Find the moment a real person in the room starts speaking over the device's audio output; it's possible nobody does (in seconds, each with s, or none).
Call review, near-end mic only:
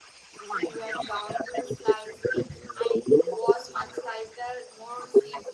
0.5 s